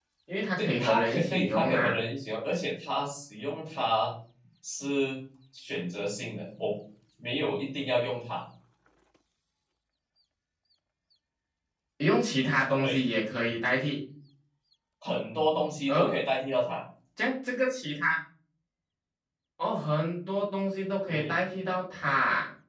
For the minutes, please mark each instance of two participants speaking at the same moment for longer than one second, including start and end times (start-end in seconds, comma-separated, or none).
0.6-2.0